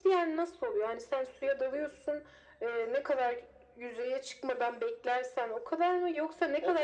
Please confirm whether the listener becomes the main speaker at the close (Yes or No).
Yes